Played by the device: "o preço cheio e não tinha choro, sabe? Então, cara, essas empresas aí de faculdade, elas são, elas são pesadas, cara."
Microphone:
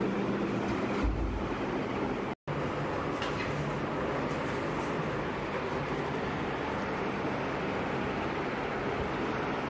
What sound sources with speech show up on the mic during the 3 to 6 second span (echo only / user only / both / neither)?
neither